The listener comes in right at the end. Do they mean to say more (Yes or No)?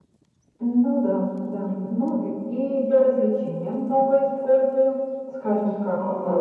Yes